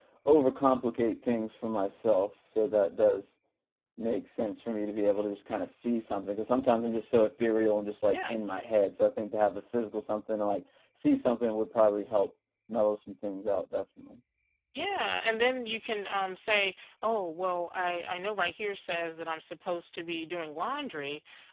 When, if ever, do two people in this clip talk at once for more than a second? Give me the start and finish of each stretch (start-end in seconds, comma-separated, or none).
none